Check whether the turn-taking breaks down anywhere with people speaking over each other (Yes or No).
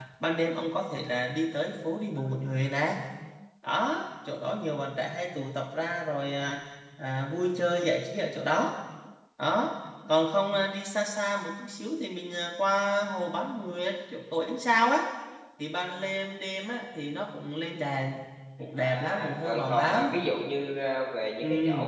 Yes